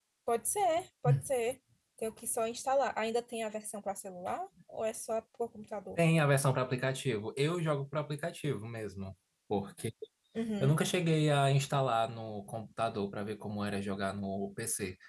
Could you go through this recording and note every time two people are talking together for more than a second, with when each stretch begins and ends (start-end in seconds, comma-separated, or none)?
none